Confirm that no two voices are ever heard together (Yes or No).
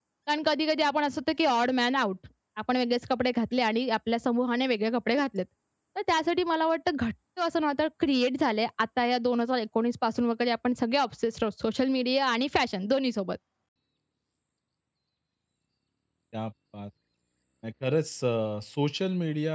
Yes